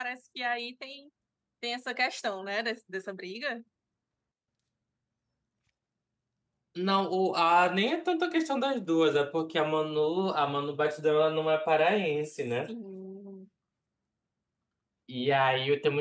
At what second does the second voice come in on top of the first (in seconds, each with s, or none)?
none